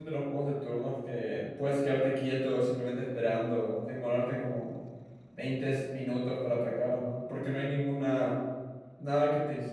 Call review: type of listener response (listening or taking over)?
taking over